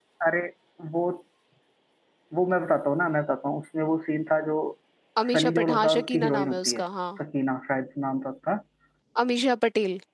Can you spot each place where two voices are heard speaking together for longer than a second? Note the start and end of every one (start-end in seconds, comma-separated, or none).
5.3-6.8